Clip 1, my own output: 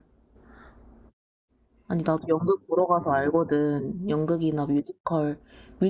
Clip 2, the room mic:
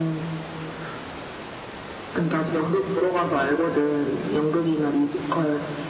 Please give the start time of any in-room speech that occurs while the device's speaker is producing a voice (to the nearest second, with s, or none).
none